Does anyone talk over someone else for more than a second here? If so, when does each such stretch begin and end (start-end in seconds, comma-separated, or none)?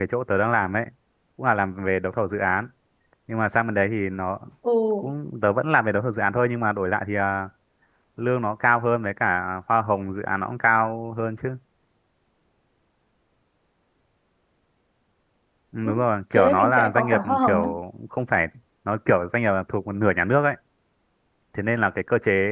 16.4-17.7